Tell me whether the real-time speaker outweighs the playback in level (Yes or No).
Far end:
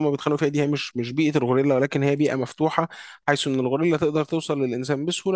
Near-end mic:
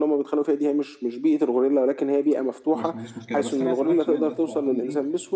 No